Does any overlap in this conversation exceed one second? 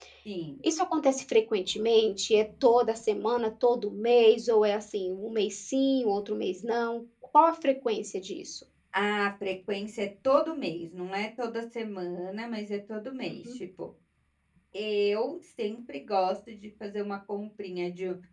No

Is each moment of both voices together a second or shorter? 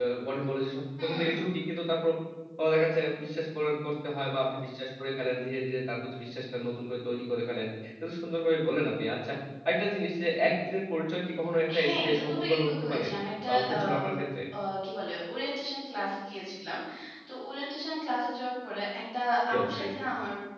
No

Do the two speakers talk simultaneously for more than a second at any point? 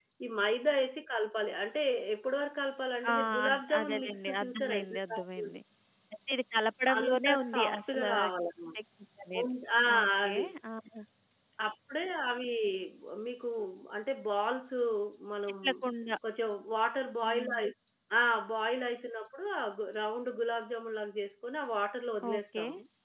Yes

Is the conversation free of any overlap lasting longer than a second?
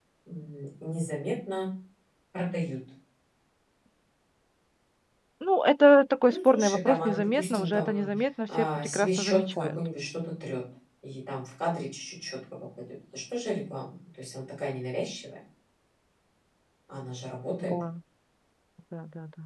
No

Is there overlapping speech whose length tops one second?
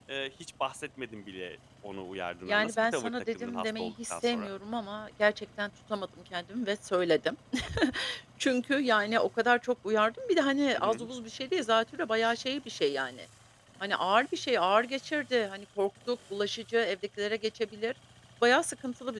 Yes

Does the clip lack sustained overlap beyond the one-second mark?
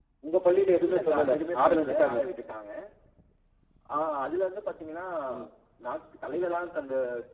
No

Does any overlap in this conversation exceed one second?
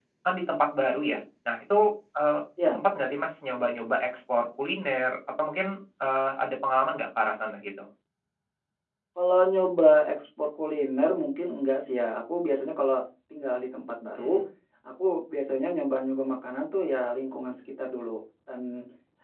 No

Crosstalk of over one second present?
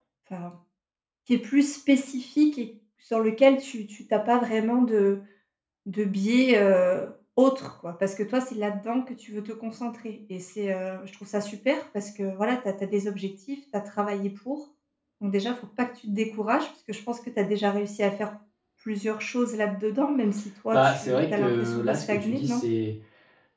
Yes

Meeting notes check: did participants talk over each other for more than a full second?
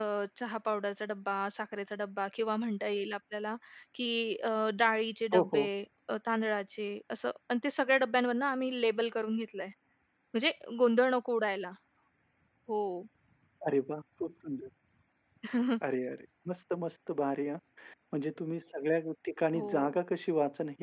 No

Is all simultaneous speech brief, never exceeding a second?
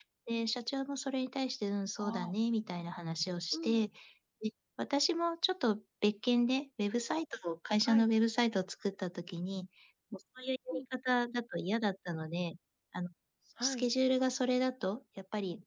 Yes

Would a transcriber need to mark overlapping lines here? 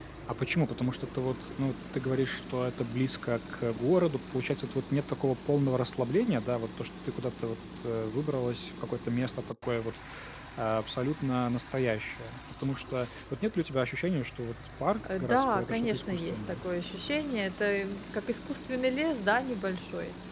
Yes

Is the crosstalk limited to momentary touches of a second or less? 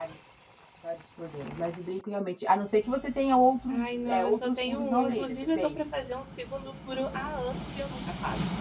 No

